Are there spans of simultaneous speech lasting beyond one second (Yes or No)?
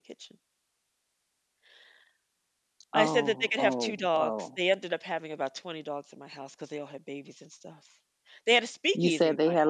Yes